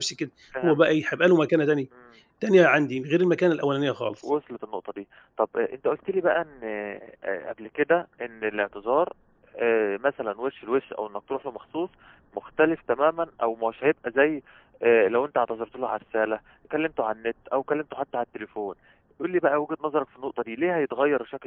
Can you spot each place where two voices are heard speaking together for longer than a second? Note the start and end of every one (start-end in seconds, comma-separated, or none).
none